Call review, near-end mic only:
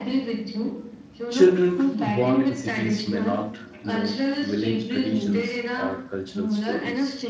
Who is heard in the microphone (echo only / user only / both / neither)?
both